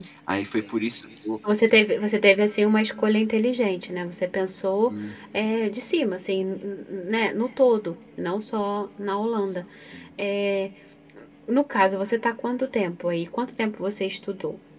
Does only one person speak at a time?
Yes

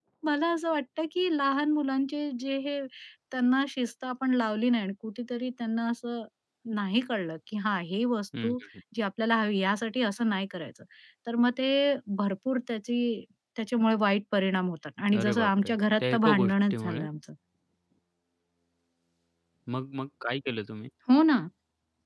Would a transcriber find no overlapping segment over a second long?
No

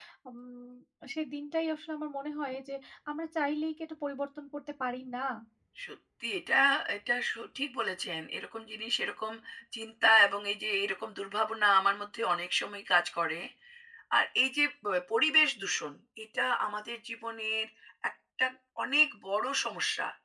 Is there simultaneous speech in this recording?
No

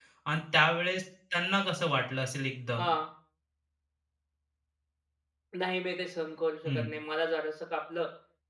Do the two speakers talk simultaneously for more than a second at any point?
No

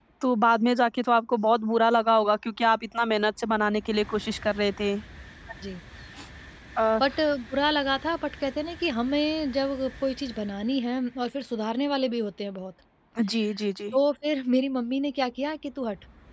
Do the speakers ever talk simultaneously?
No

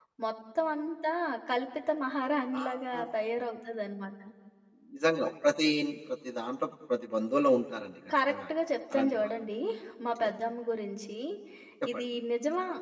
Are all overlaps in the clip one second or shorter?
Yes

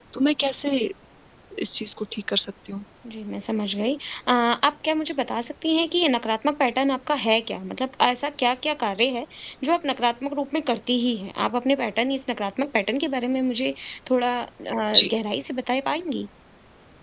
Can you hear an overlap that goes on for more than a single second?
No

